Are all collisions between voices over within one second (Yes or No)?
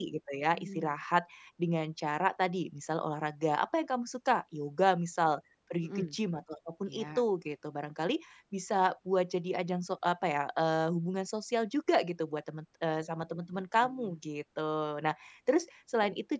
Yes